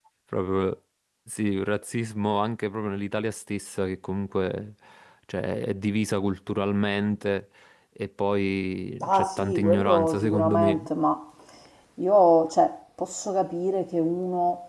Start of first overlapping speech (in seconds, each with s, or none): 9.0 s